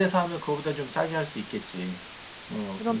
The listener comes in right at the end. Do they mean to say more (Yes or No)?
Yes